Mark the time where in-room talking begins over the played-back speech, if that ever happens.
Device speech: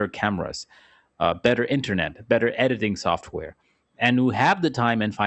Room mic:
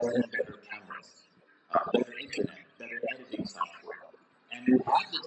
none

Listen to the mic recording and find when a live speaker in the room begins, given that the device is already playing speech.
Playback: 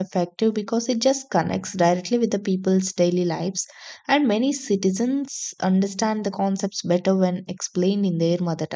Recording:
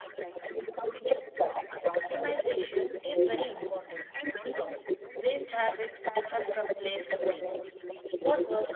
1.9 s

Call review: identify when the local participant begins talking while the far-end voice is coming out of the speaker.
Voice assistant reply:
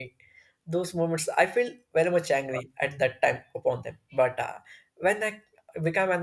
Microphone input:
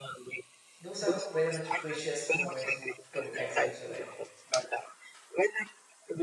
0.8 s

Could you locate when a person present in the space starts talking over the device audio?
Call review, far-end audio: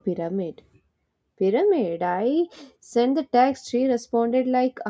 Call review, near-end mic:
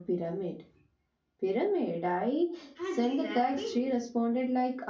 2.8 s

